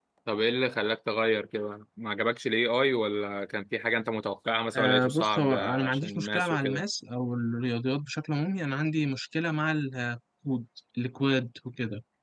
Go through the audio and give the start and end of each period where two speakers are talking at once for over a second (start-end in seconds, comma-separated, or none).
4.8-6.8